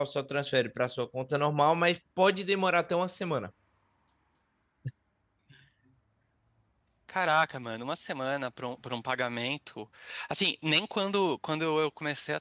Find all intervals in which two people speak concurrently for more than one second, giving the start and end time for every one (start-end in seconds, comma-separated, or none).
none